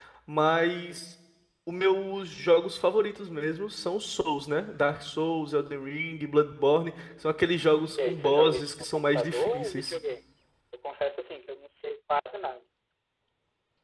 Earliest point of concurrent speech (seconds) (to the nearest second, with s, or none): 8 s